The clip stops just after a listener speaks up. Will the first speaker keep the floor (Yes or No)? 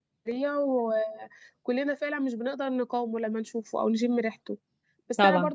Yes